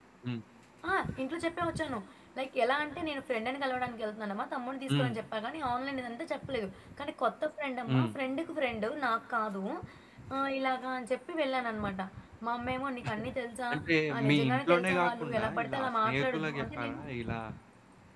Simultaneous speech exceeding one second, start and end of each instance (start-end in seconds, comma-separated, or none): 14.1-17.0